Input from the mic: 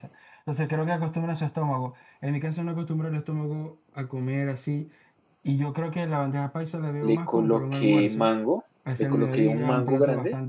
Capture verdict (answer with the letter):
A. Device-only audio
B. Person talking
B